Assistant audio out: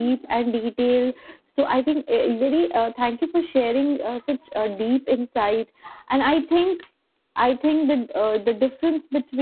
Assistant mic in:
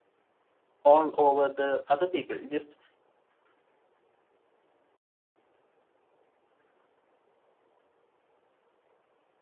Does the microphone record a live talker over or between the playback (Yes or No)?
Yes